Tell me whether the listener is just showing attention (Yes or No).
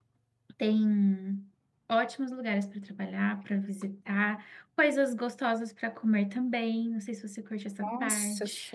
No